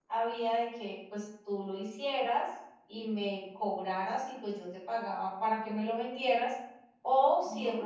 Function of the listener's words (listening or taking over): listening